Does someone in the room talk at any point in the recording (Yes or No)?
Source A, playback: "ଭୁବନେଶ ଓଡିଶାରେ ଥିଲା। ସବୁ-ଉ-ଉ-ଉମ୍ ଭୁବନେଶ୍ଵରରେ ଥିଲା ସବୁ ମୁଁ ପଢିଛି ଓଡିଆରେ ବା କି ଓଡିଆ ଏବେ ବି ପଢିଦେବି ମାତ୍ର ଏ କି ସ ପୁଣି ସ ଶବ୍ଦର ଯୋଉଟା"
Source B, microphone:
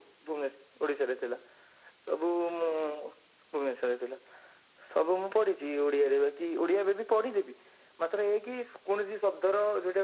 No